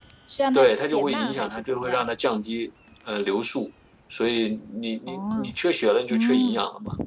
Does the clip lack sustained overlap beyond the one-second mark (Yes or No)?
No